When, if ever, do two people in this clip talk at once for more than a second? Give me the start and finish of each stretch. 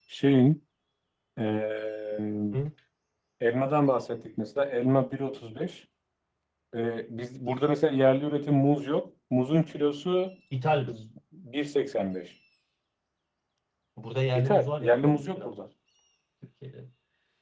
14.4-15.6

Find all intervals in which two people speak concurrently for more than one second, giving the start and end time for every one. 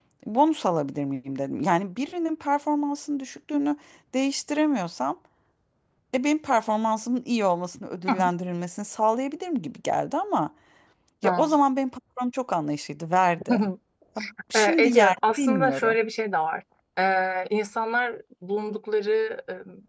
14.5-16.0

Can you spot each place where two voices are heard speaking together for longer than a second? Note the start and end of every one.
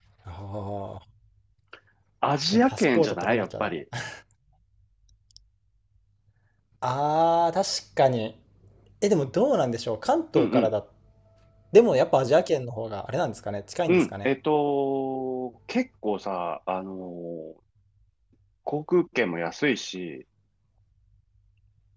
2.5-3.7

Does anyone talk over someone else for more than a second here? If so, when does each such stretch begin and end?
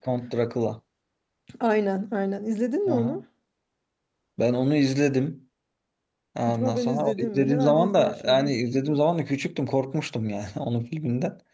6.5-8.5

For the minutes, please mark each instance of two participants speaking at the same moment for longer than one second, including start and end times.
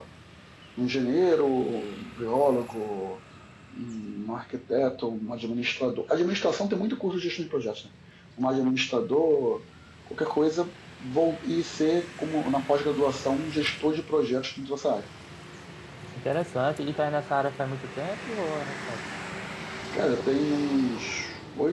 none

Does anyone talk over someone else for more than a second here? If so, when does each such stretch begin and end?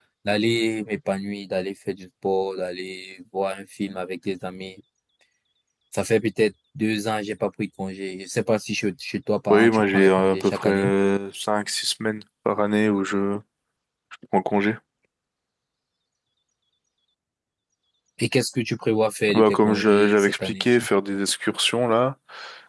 9.5-10.9, 19.3-20.9

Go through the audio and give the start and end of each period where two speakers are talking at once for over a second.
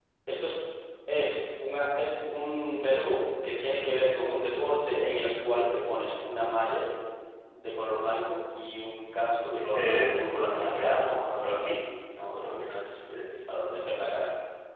9.5-11.7

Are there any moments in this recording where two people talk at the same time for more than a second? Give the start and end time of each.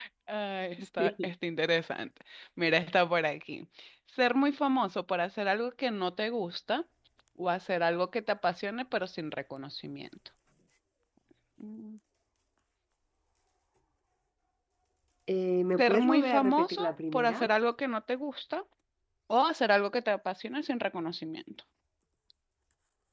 15.8-17.5

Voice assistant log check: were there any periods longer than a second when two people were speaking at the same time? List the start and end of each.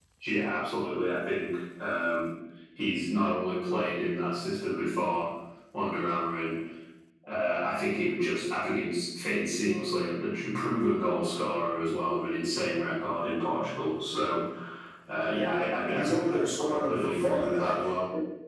15.9-17.8

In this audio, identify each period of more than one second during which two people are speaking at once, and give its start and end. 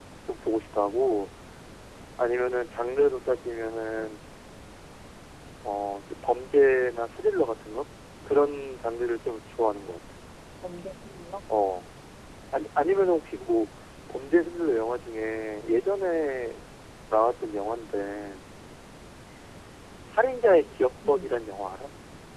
none

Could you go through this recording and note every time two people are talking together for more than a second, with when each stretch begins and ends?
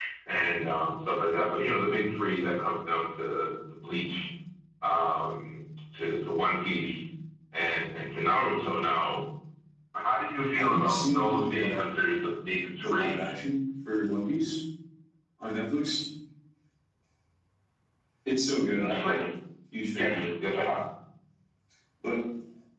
10.6-11.8

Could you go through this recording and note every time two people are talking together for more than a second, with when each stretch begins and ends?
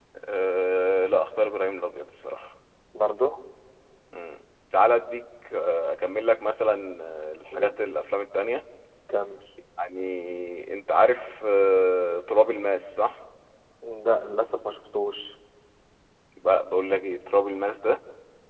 none

